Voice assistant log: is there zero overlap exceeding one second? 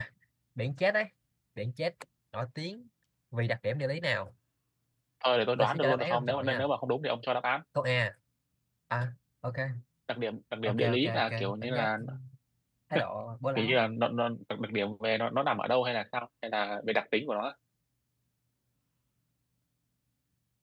No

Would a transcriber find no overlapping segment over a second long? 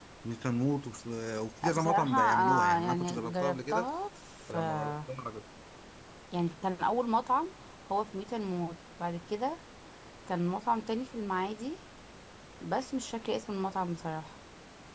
No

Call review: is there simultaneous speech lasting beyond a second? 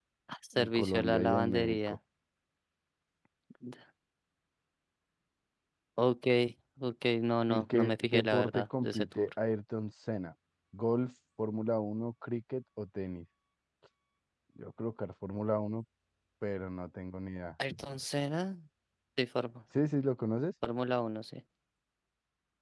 Yes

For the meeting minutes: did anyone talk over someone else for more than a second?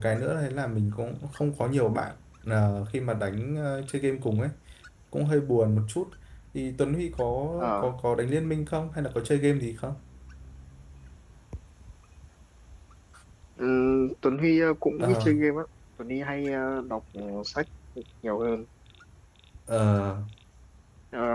No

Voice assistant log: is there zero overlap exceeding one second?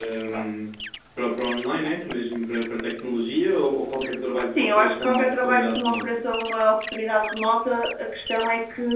No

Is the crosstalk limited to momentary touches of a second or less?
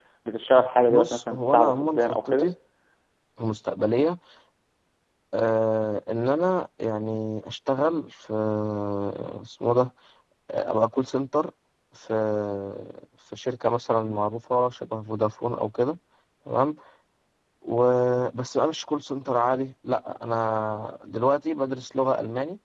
No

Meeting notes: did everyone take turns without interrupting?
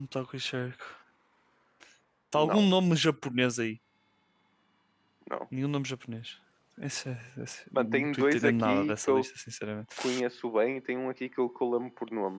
No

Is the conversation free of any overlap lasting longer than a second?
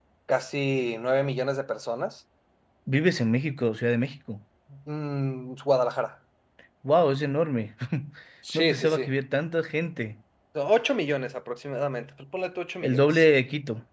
Yes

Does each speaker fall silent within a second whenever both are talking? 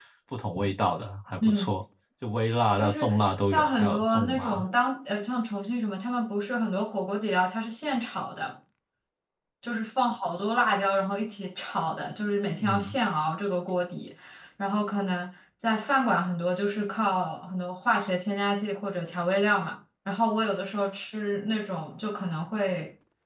No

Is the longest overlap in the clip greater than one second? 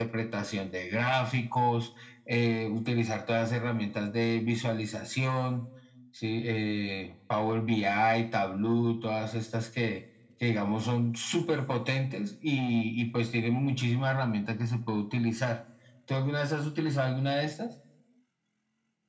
No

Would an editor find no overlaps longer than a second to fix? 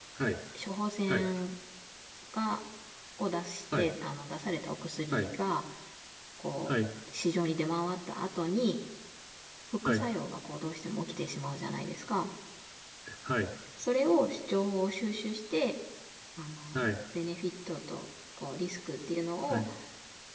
Yes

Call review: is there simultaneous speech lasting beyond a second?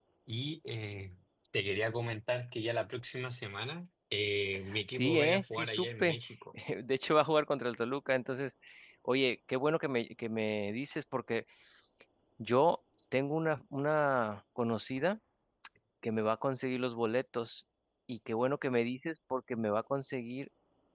Yes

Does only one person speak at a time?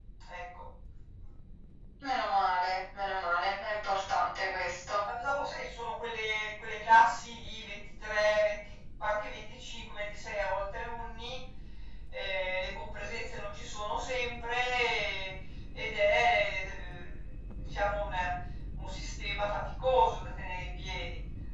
Yes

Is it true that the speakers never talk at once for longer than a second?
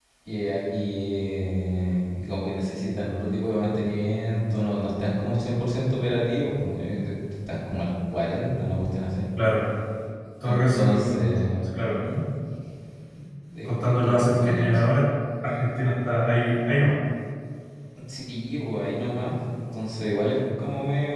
No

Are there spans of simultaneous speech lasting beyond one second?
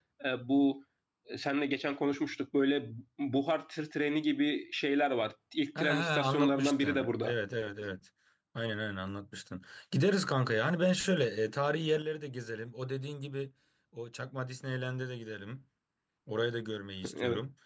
Yes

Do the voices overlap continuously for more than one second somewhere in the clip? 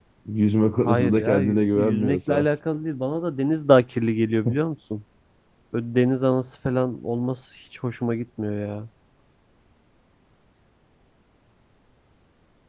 Yes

